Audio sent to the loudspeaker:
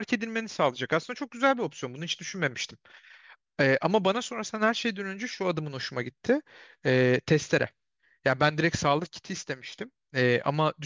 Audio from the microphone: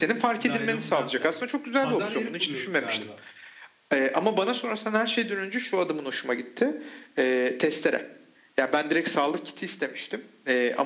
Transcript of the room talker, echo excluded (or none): Naylon branda. Pazar yeri kuruyoruz galiba.